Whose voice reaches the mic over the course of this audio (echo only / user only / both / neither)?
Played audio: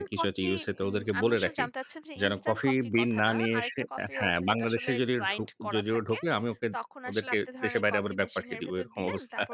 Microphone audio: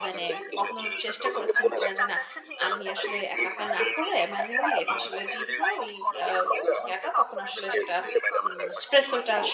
both